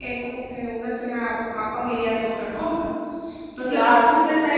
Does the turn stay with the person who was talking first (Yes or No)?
Yes